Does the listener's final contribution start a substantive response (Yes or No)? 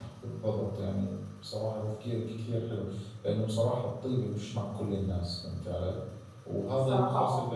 No